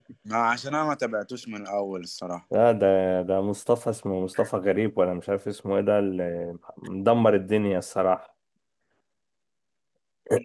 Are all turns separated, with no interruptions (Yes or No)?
Yes